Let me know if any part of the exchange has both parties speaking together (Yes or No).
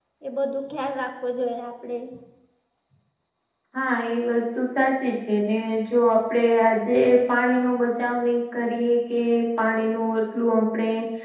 No